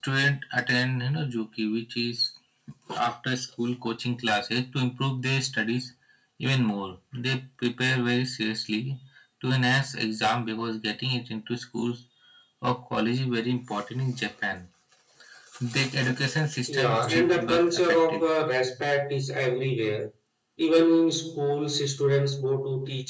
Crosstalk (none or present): present